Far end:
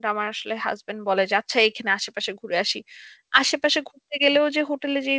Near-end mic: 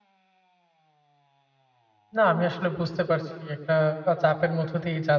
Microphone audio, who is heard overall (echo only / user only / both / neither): user only